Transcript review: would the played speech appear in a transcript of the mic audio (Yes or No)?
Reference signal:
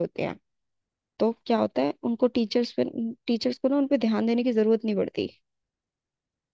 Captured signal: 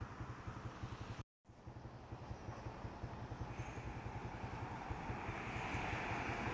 No